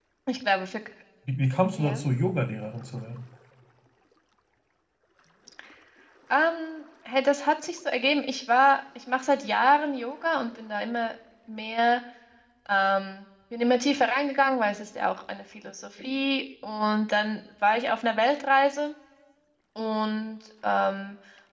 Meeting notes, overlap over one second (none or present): none